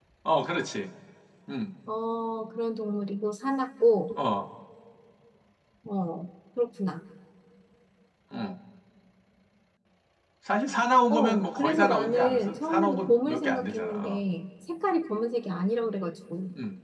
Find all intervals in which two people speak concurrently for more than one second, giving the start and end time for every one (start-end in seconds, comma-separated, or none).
11.1-14.2